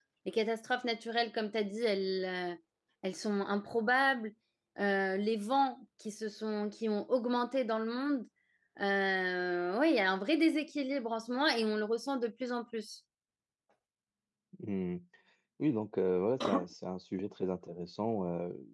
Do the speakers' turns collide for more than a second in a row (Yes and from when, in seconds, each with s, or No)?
No